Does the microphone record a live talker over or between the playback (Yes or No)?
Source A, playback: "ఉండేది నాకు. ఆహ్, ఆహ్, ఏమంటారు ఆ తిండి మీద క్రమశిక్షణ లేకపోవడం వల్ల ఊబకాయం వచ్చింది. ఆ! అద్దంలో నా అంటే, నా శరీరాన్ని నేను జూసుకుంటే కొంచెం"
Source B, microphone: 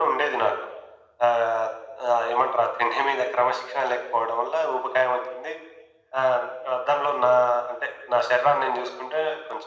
No